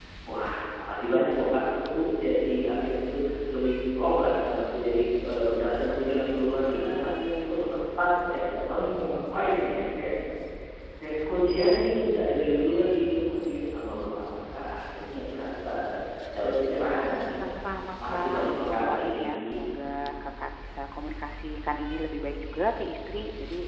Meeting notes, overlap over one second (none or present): present